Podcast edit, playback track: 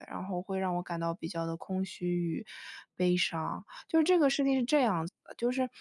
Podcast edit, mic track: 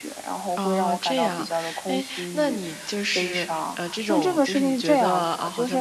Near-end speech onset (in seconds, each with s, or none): 0.6 s